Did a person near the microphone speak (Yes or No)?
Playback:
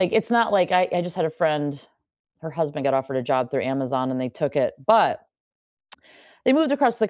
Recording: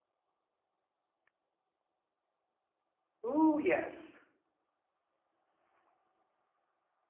Yes